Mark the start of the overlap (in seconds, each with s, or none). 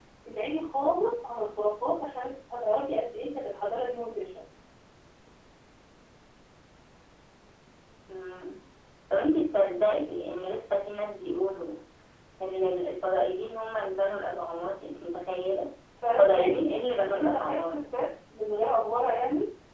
16.2 s